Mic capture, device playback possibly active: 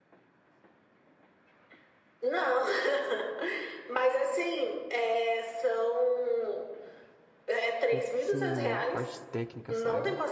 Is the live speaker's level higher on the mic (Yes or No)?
No